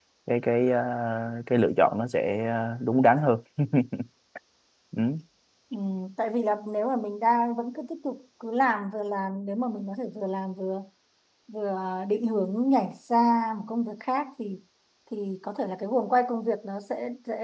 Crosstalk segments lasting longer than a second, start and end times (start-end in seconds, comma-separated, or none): none